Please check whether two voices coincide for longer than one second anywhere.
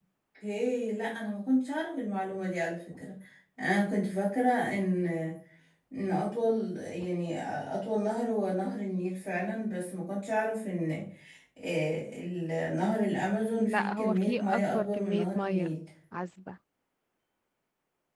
Yes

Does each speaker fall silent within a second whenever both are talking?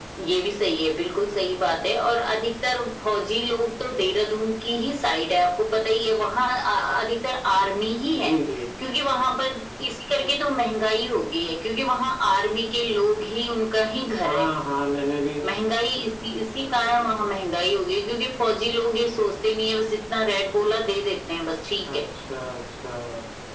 Yes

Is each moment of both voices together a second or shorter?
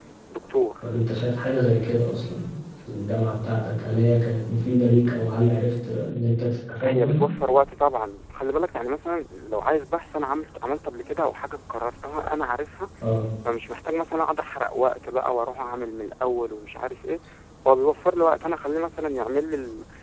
Yes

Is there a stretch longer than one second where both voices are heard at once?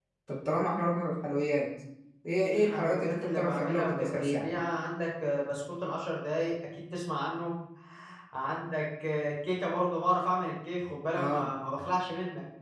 Yes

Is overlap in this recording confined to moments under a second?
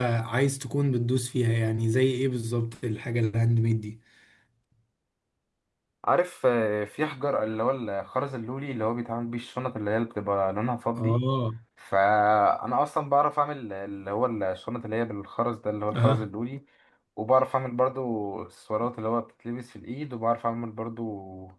Yes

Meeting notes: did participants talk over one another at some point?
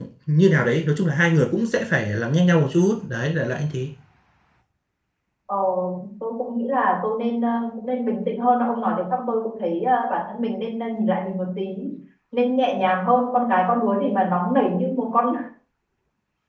No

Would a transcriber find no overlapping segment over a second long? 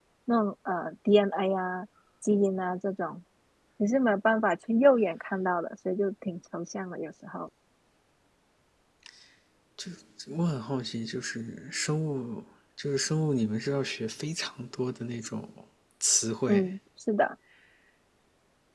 Yes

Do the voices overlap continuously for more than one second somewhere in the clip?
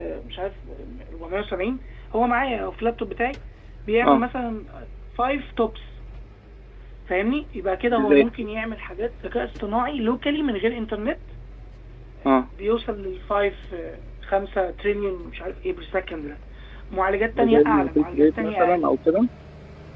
Yes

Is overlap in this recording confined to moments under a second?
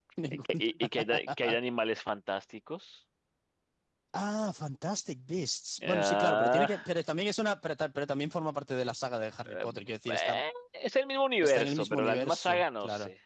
No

